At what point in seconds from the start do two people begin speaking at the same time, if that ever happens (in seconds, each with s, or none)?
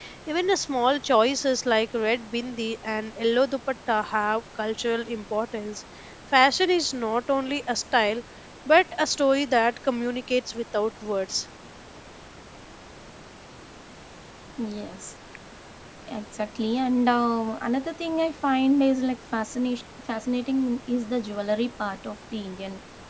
none